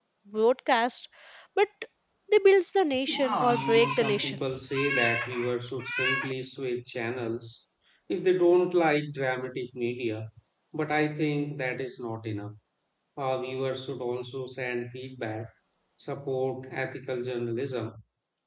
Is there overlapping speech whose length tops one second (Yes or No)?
Yes